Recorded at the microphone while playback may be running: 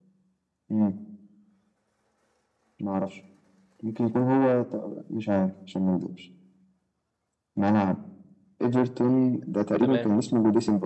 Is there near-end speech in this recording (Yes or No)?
Yes